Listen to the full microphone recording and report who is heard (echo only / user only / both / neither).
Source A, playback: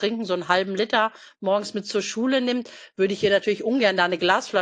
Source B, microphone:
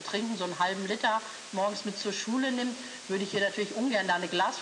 echo only